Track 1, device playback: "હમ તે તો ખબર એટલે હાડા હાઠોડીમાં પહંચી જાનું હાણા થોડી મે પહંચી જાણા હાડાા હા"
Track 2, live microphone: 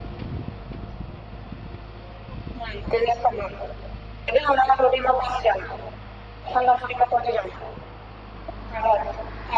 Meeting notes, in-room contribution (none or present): none